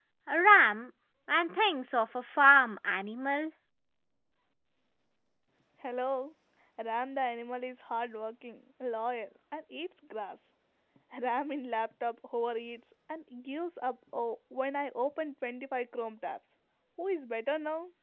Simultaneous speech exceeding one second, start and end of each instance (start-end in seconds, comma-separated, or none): none